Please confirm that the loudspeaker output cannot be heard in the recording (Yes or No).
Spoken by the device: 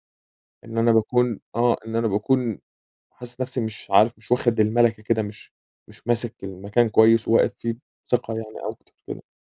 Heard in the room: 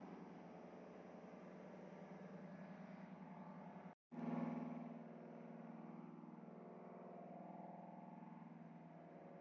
Yes